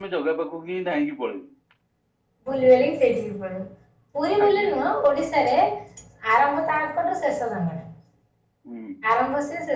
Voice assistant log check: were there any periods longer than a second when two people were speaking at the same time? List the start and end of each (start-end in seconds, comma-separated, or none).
none